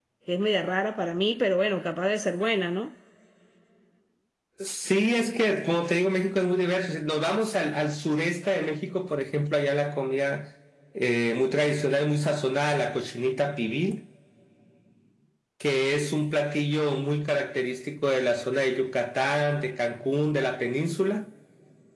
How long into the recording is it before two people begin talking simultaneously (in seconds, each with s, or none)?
none